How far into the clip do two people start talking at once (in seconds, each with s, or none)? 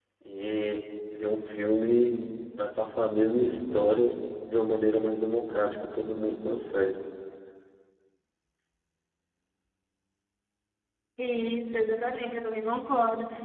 none